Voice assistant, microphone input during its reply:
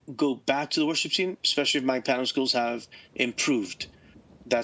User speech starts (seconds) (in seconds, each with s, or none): none